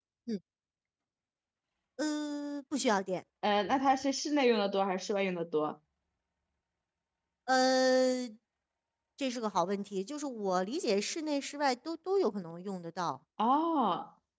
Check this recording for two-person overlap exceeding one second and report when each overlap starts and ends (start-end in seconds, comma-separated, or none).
none